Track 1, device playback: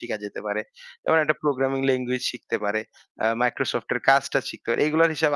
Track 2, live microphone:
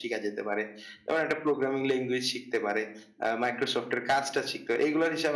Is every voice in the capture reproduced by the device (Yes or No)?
Yes